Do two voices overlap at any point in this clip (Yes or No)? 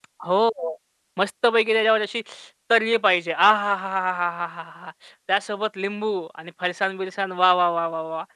No